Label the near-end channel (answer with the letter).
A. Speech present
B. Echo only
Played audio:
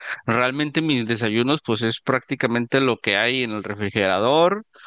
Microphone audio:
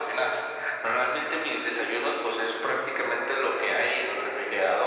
B